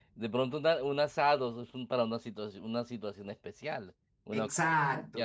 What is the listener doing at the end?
listening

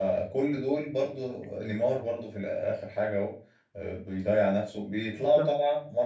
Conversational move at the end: listening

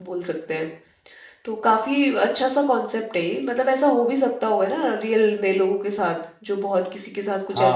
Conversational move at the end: taking over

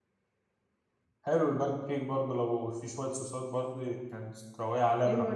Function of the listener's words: taking over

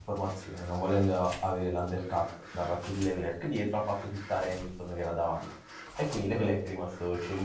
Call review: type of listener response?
listening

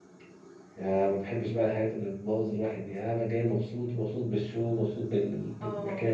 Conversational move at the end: listening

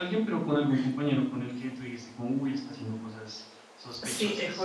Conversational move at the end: taking over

